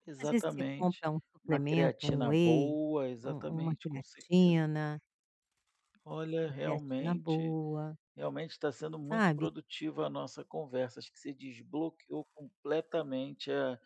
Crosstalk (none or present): present